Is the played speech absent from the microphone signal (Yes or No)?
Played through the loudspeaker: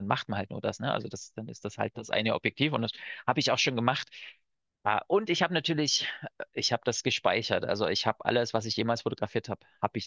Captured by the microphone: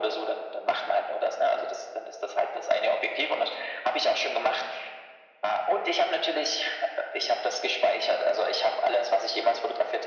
No